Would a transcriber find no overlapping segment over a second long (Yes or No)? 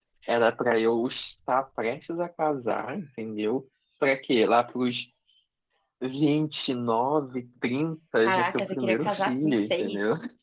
No